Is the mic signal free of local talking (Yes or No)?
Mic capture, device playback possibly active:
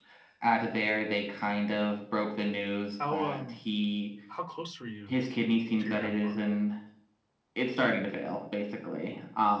No